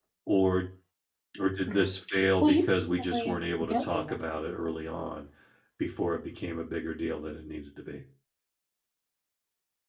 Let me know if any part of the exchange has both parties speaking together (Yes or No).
Yes